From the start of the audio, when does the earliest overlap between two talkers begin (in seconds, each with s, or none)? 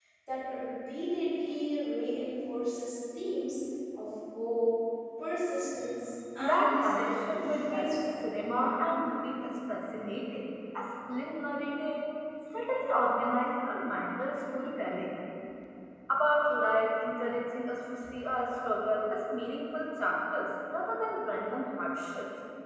6.4 s